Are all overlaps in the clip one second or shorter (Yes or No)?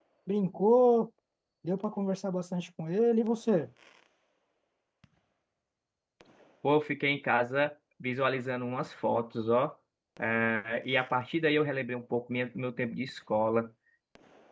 Yes